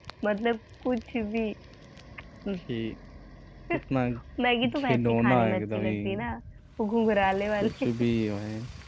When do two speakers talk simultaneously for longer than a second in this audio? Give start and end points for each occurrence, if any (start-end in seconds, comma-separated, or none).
4.8-6.0